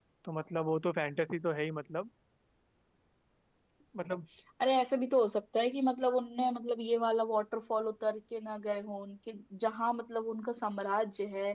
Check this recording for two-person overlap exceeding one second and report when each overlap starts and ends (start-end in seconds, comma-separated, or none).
none